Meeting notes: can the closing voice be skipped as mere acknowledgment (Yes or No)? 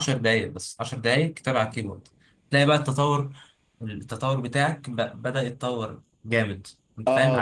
No